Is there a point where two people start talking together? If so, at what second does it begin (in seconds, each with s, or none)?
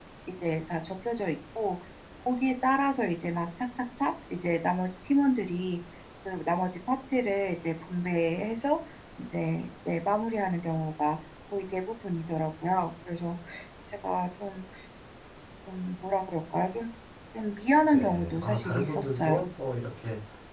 17.9 s